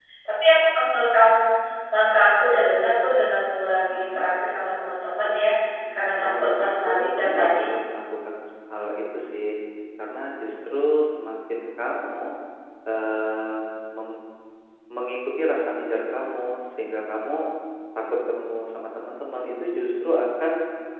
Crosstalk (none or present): present